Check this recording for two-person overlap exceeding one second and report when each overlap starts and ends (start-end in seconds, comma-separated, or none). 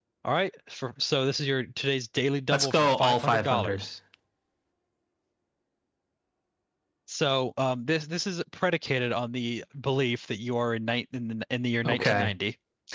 2.5-3.9